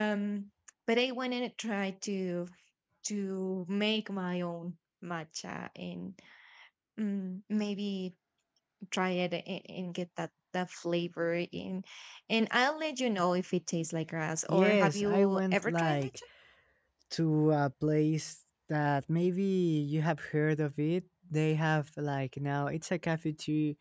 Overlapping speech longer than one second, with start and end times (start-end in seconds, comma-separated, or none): 14.5-16.2